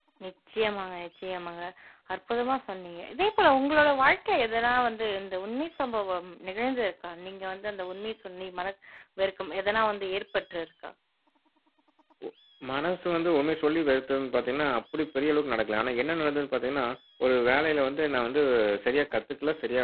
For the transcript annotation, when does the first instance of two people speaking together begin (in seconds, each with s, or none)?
none